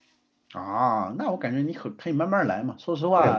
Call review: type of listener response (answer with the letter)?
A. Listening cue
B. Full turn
B